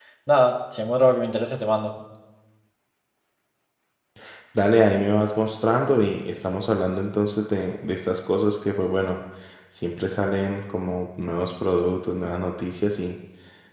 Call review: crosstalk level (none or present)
none